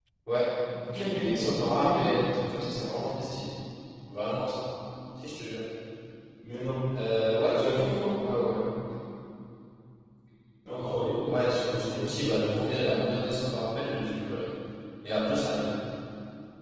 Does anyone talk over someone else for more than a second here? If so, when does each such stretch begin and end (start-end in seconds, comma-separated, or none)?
0.9-2.3, 11.7-13.1